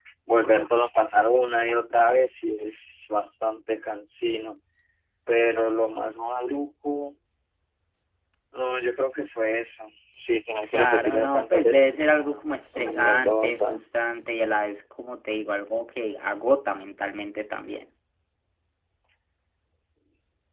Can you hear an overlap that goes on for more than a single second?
Yes, from 10.6 s

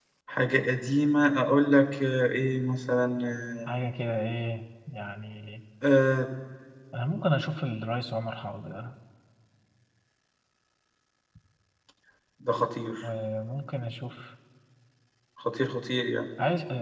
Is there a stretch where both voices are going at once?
No

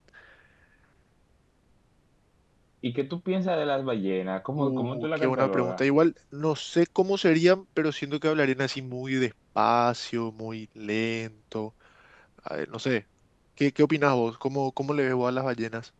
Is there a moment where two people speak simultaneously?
Yes, from 4.6 s

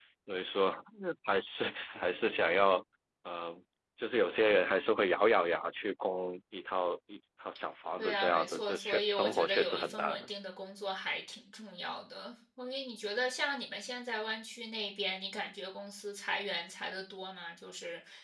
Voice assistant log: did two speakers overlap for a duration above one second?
Yes, from 8.0 s

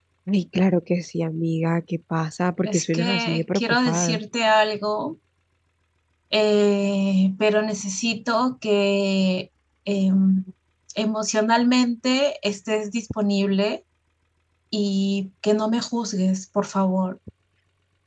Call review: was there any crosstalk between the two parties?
Yes, from 2.6 s

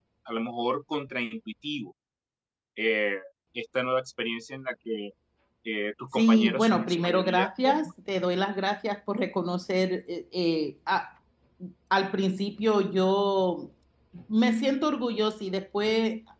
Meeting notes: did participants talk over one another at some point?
Yes, from 6.2 s

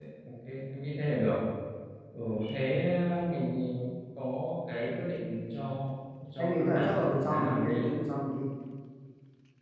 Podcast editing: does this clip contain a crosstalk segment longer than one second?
Yes, from 6.4 s

